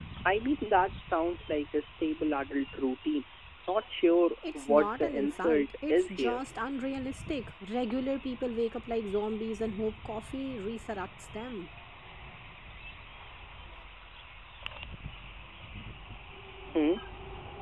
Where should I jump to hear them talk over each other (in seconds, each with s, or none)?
4.4 s